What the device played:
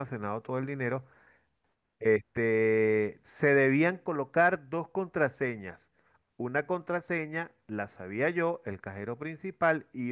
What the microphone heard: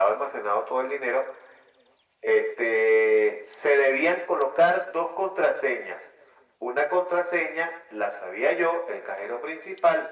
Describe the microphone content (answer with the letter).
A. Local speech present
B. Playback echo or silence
B